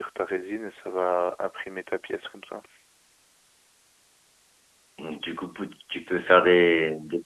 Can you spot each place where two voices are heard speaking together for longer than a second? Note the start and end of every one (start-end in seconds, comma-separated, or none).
none